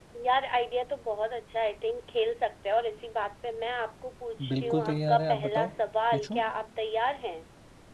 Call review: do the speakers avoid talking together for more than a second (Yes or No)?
No